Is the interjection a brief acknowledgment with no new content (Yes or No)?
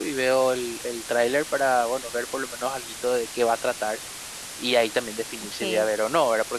Yes